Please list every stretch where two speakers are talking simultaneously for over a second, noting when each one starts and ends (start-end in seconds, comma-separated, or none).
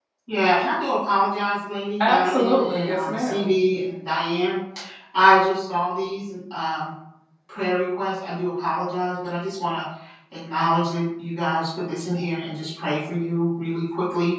2.0-3.5